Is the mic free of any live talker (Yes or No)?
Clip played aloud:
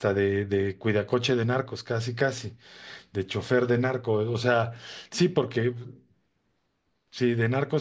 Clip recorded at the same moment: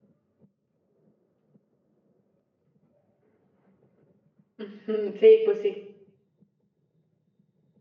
No